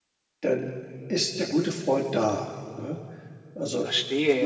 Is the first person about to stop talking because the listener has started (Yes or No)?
Yes